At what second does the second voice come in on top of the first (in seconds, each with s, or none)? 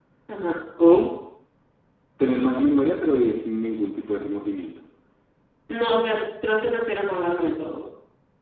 none